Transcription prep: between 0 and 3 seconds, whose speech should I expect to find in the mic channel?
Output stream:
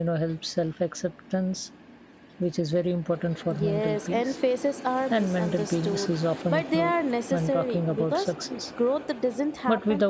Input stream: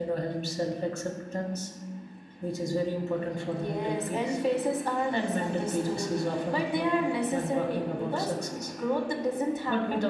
echo only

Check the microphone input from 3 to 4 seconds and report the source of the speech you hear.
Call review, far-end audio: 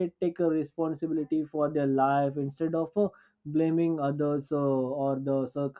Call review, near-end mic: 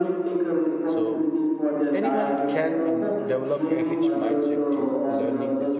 both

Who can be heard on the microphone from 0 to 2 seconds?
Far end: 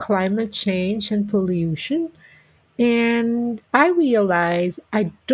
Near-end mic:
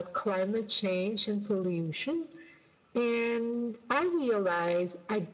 echo only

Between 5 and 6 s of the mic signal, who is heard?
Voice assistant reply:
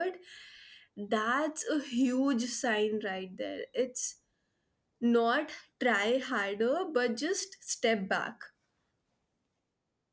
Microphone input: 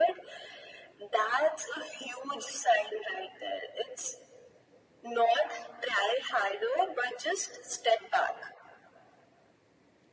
echo only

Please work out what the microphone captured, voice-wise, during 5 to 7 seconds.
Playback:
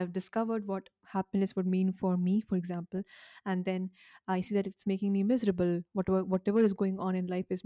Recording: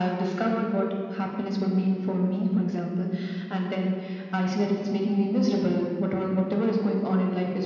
echo only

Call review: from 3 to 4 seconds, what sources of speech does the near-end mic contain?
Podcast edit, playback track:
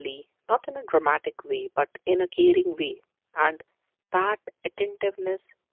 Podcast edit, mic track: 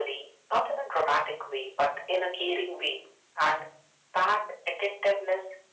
echo only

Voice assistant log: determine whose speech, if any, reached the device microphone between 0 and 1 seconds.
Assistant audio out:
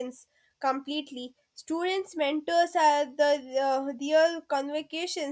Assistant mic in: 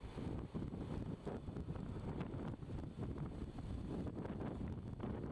neither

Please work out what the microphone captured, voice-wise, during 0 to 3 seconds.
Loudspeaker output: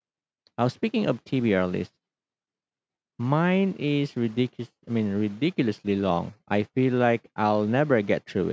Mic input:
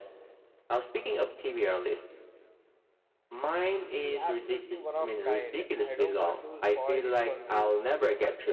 echo only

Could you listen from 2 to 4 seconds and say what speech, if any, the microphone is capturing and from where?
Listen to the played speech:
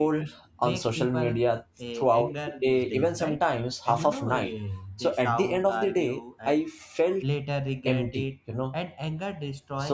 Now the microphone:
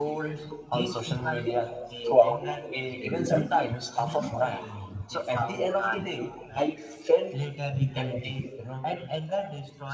echo only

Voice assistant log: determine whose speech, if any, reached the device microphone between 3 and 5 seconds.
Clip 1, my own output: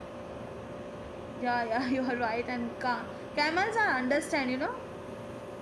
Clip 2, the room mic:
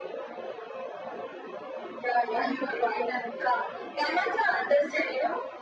echo only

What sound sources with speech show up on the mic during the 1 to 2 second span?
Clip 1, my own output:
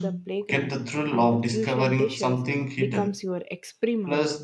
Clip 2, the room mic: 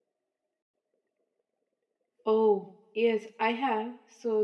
neither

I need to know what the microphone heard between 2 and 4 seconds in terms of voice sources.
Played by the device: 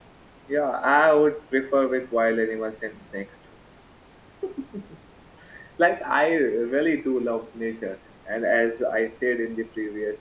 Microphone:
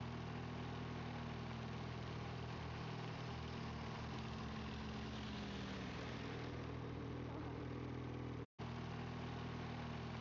neither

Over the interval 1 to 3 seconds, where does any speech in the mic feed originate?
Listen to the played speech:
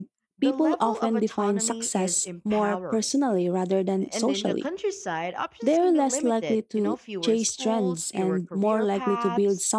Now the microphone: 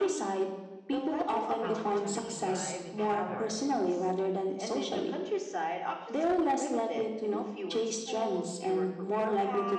both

